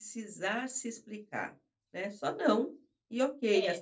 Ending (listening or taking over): listening